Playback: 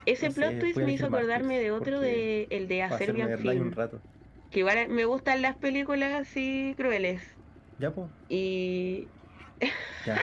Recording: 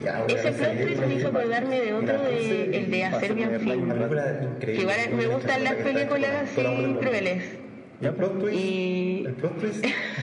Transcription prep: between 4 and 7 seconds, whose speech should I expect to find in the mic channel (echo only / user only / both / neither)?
both